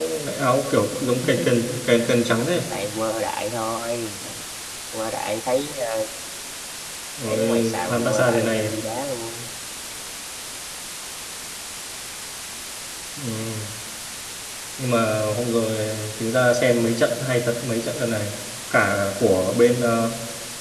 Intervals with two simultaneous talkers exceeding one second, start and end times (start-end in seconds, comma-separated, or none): 7.3-8.8